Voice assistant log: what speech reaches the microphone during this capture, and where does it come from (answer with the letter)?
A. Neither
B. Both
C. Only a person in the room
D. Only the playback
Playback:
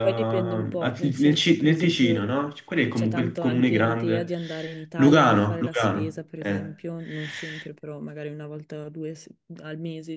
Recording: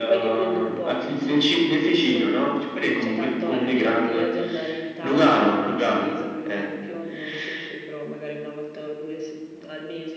D